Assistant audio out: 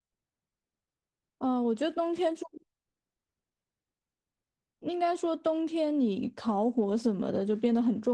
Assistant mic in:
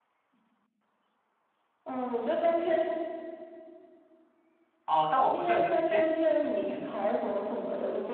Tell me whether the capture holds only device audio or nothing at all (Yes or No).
No